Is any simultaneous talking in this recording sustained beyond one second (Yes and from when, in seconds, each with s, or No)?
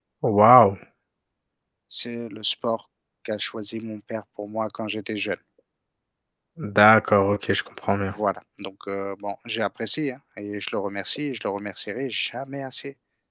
No